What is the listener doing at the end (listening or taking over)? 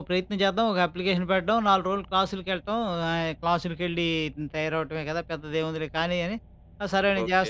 taking over